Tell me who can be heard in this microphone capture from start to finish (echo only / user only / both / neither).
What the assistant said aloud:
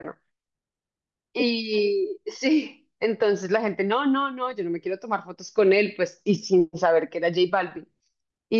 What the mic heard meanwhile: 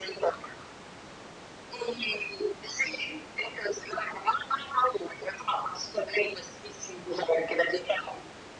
echo only